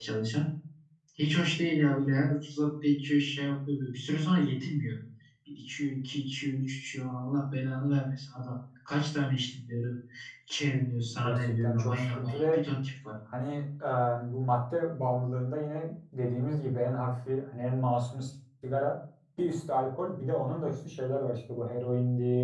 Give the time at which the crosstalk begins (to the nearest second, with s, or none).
11 s